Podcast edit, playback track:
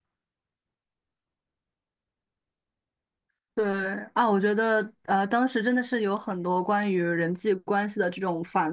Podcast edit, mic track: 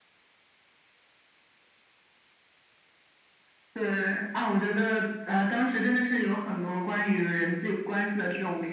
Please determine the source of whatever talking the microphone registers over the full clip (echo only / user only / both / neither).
echo only